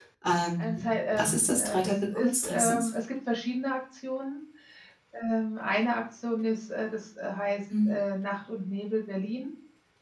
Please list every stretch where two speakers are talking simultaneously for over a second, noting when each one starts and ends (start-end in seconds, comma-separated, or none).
0.6-2.9